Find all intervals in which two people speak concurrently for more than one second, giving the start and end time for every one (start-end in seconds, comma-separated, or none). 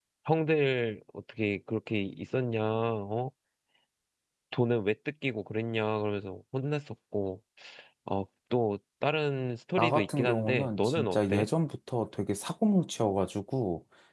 9.8-11.5